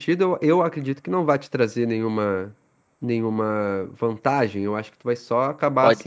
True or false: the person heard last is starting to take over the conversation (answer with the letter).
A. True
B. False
B